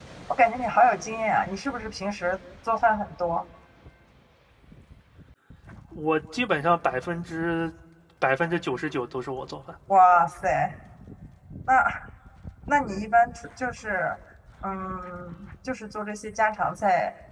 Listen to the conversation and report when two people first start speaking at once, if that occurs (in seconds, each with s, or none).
none